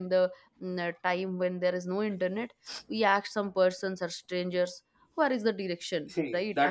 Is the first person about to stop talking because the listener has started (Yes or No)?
Yes